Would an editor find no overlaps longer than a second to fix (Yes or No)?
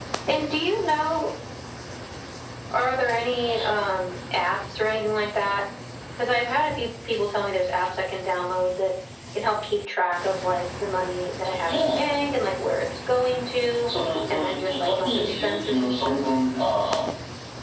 No